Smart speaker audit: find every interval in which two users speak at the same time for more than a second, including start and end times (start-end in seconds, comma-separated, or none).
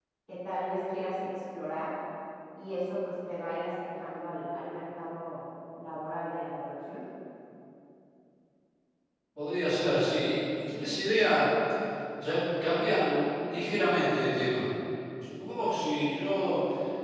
none